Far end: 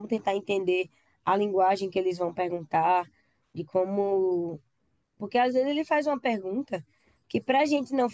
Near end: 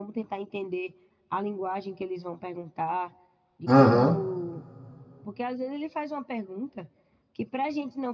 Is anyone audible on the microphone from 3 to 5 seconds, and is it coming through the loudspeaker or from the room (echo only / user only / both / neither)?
both